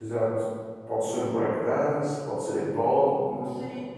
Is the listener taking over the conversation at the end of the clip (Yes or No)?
Yes